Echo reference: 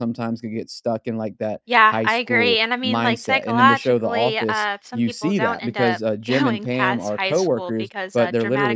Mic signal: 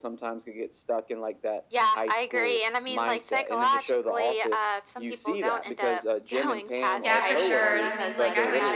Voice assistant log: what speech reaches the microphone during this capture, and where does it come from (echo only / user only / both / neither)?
both